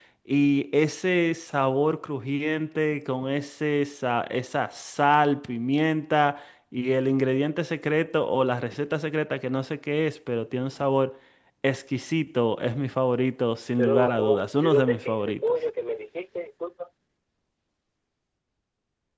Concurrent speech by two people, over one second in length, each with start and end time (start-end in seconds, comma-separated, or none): 13.8-15.4